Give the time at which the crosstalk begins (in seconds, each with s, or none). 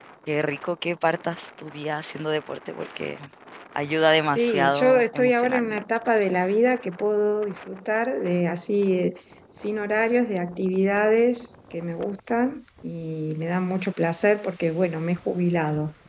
4.3 s